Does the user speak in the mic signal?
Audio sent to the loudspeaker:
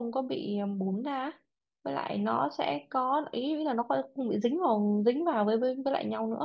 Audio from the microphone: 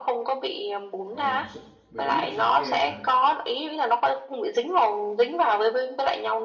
Yes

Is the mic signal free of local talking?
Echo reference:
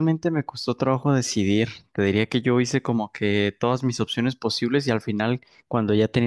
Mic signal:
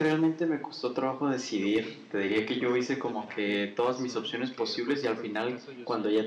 No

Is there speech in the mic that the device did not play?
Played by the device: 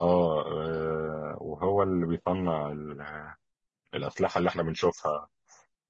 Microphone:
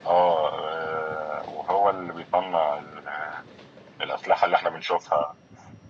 No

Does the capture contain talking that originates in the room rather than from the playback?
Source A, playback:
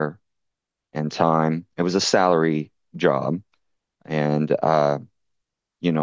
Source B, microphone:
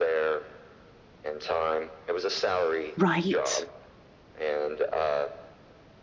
Yes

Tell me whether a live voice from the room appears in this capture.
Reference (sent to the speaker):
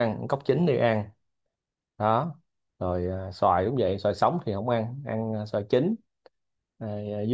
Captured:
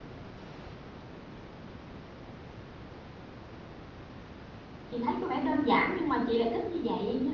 Yes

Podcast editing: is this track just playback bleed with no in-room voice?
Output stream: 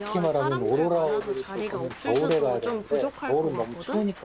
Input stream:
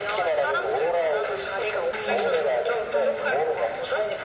No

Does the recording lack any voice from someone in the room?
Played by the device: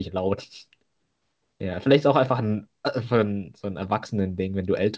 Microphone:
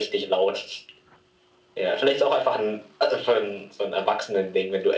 Yes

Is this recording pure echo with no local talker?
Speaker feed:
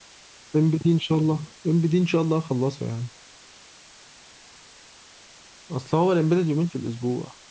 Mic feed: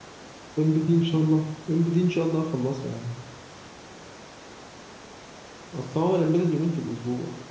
Yes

